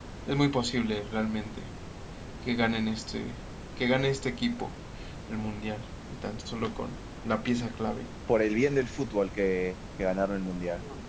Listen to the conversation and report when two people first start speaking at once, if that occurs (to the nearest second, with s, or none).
none